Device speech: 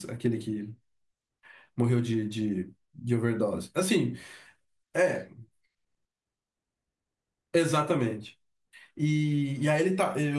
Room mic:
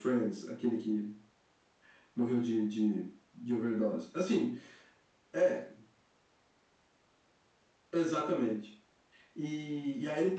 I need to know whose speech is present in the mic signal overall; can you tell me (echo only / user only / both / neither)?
echo only